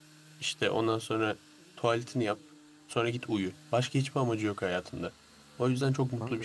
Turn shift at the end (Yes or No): No